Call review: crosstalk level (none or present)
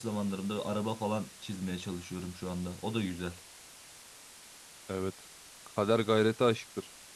none